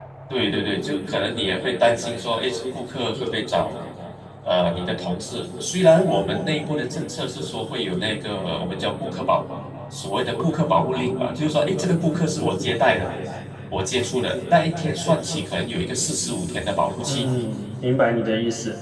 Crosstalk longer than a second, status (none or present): none